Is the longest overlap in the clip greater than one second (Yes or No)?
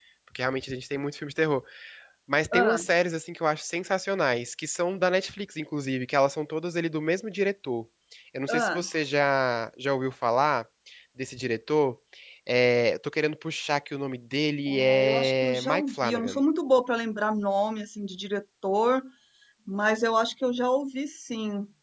Yes